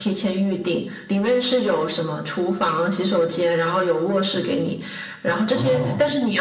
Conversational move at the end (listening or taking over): listening